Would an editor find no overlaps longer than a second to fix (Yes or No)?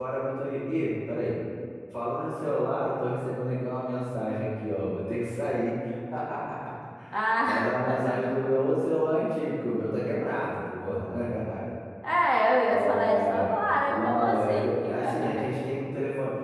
No